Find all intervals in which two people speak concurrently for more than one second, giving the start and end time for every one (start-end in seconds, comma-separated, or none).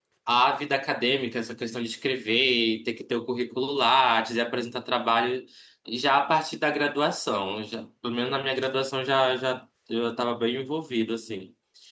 none